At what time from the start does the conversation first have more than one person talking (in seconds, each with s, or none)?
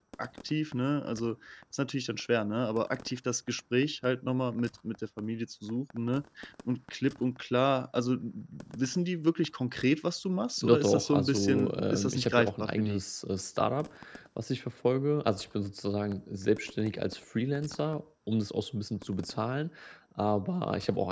10.6 s